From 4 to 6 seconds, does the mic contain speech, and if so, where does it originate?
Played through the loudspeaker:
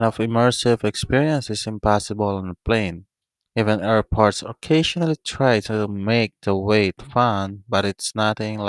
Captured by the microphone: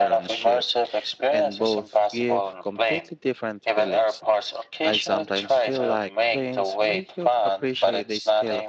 both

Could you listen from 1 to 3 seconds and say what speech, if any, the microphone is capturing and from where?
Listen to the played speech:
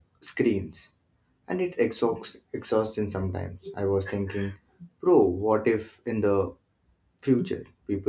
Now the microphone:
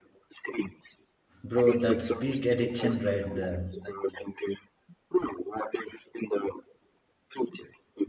both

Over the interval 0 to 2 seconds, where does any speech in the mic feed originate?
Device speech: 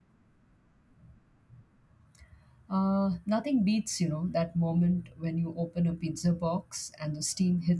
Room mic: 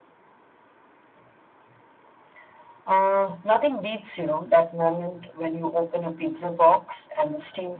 neither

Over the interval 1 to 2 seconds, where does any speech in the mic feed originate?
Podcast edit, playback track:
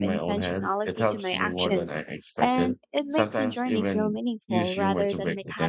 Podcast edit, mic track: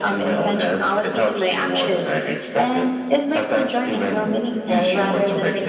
echo only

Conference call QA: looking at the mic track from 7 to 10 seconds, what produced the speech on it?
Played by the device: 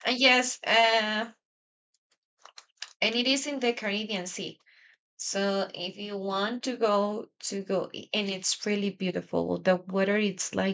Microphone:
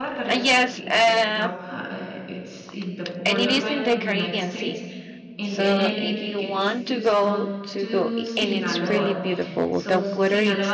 both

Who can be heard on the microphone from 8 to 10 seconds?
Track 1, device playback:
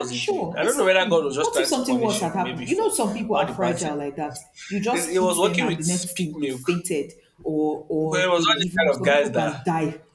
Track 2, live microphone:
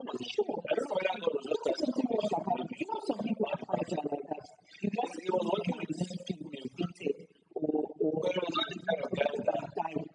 echo only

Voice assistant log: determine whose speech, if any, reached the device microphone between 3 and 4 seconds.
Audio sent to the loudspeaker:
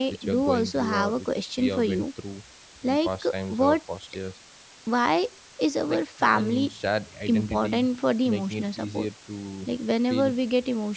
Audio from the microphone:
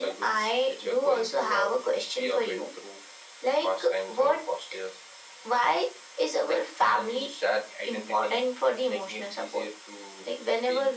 echo only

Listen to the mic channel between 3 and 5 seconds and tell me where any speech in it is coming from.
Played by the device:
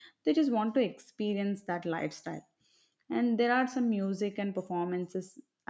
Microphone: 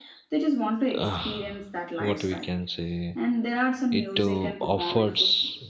both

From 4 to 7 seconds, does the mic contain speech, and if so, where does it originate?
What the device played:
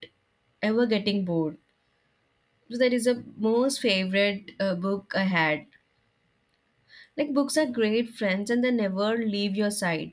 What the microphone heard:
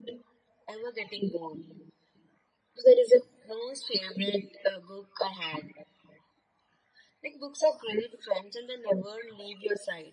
echo only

